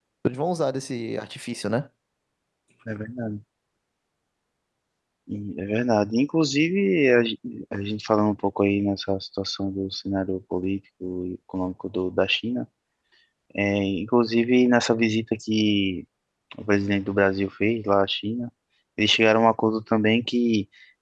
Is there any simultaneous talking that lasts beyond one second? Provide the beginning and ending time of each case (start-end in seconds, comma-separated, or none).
none